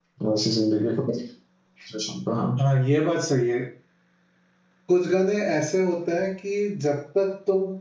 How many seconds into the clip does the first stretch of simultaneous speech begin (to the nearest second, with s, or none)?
none